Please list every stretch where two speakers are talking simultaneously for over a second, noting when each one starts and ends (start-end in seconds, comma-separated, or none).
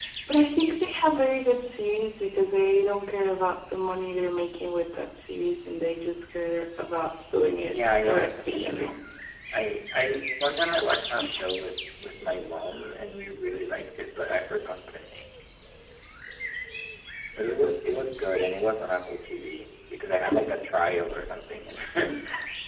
7.7-8.9